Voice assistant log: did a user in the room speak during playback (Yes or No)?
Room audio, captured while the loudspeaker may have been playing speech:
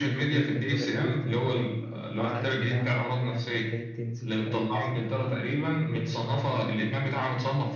Yes